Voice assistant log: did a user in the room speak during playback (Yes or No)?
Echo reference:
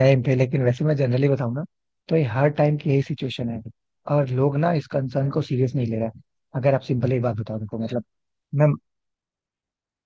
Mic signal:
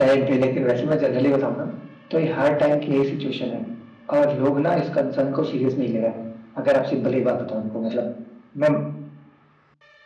No